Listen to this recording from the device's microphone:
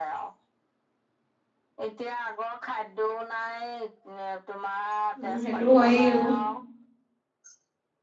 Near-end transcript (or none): উম, সেইটো হয়েও।